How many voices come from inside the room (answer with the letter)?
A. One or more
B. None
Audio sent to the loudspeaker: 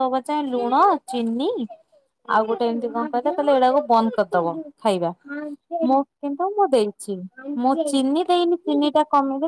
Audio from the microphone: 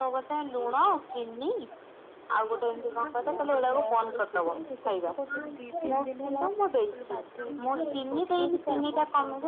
A